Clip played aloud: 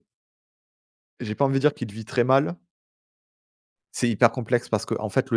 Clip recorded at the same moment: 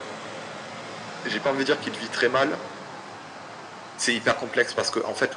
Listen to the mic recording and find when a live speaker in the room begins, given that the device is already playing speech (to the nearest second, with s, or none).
none